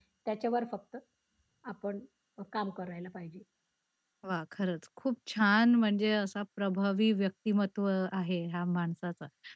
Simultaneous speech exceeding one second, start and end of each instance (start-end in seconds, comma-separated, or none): none